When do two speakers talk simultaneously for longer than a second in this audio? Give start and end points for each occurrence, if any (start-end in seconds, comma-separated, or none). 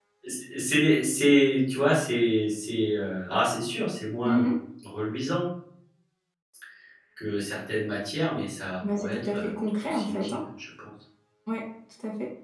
8.9-10.4